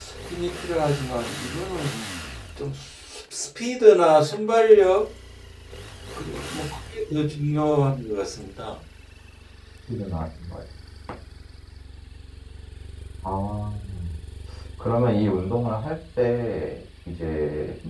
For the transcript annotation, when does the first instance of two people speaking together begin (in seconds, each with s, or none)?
none